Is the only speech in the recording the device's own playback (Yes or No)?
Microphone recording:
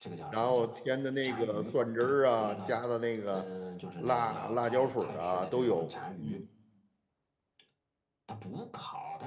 No